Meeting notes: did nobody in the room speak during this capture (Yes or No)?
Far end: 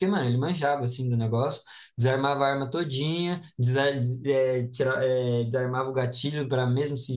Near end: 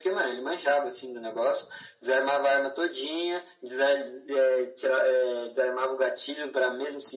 Yes